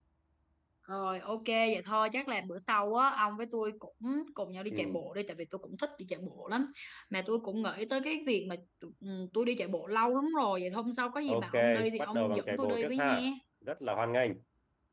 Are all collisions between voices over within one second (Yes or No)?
No